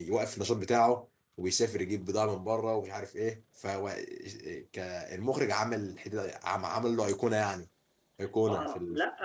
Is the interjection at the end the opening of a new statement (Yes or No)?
Yes